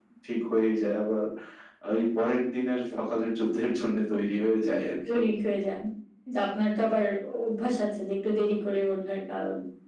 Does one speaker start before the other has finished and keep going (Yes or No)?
No